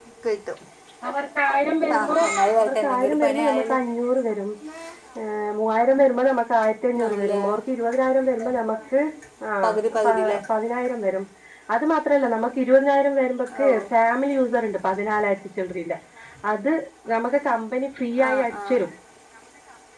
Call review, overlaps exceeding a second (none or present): present